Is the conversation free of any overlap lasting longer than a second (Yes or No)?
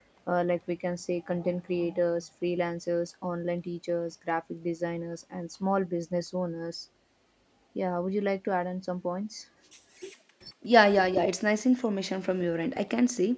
Yes